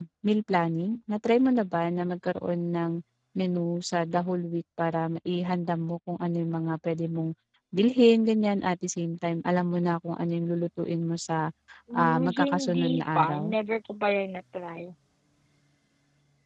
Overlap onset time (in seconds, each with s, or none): 11.9 s